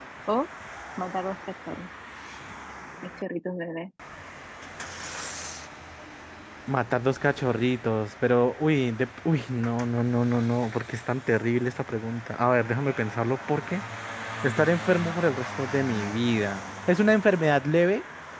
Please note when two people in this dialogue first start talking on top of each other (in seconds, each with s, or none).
none